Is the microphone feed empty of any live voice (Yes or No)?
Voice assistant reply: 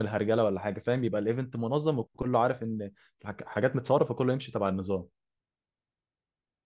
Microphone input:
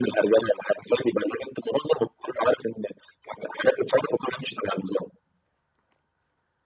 Yes